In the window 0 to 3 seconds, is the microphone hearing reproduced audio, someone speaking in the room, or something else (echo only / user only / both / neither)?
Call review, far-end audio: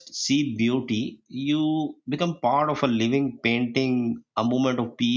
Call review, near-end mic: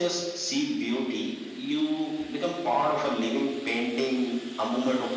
echo only